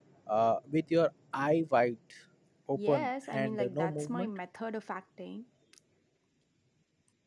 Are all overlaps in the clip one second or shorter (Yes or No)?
No